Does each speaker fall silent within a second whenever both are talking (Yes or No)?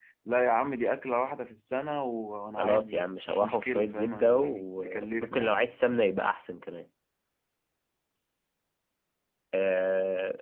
No